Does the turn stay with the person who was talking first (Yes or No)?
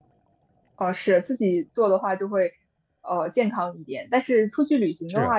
Yes